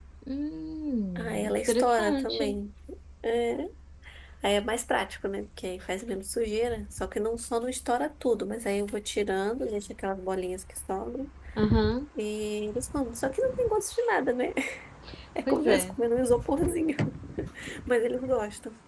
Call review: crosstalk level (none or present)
present